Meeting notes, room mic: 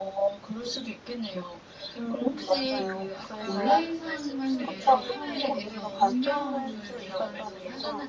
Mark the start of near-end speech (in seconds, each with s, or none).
2.7 s